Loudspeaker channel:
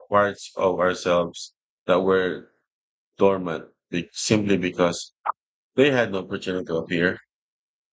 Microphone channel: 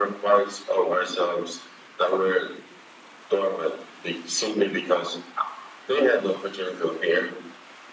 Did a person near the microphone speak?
No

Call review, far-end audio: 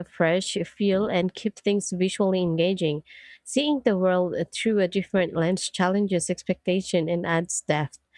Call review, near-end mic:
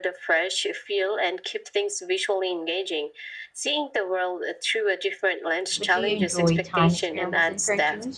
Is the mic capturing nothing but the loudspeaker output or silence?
No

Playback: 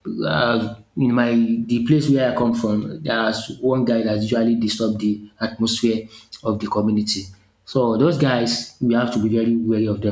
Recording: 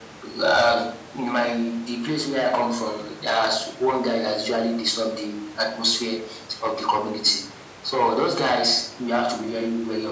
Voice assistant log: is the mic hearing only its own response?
Yes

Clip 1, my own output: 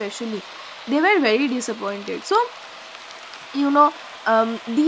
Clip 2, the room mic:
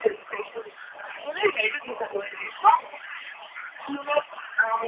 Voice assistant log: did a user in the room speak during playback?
No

